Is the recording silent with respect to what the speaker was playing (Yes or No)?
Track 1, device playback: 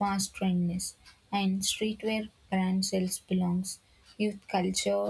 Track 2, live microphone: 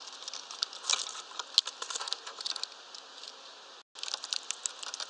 Yes